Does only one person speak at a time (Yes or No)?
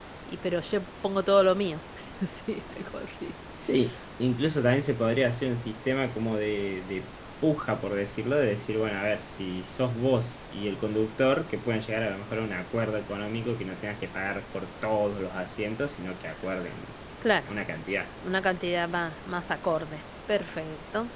Yes